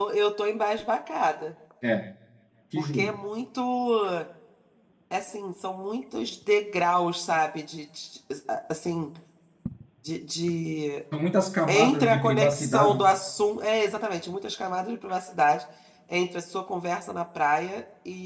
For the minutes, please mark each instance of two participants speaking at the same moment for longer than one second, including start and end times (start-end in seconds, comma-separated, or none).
11.7-13.0